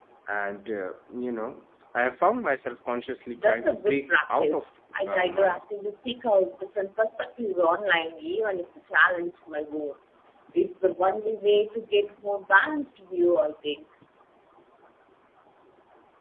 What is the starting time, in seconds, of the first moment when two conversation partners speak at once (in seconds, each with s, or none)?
3.4 s